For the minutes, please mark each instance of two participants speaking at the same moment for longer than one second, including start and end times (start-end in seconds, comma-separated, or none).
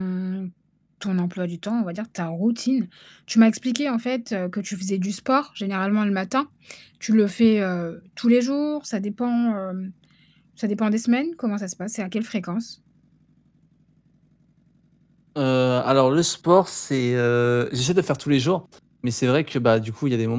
none